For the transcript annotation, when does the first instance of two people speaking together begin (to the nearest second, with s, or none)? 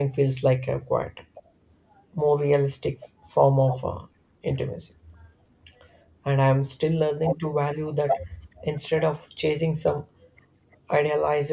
none